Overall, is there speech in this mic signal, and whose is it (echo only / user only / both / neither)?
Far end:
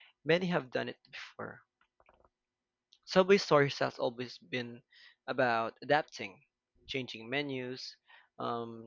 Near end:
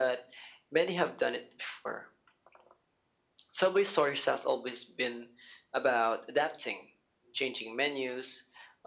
echo only